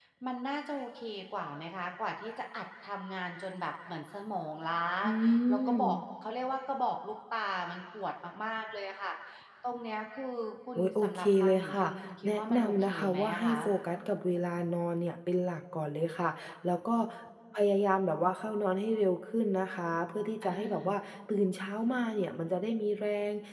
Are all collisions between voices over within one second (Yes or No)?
No